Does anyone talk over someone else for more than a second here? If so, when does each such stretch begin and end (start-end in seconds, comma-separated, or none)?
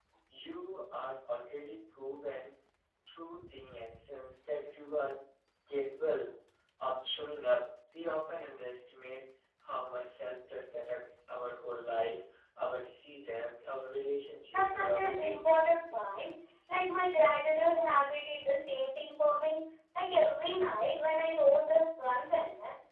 14.5-16.0